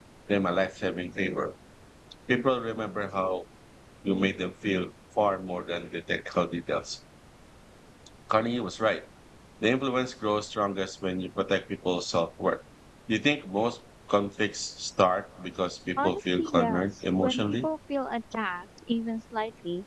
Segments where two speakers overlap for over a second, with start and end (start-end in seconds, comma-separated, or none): 16.0-17.7